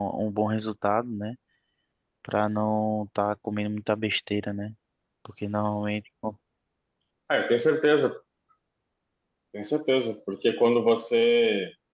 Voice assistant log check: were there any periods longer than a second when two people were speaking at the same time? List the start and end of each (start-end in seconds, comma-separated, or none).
none